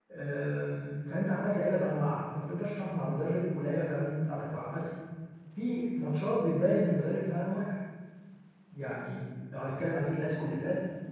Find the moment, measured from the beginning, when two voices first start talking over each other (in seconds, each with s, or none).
none